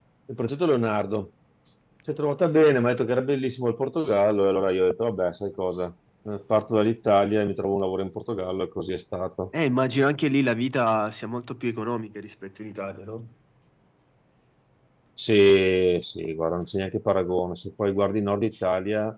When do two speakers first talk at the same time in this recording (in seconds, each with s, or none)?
none